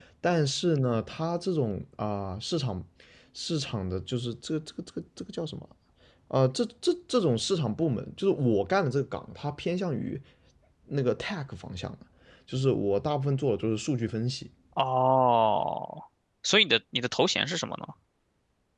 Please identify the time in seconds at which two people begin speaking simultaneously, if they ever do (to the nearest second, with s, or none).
none